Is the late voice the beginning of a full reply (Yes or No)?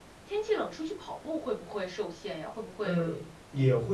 Yes